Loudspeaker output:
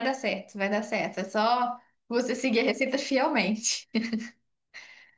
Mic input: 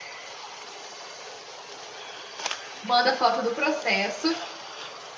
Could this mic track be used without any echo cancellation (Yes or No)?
Yes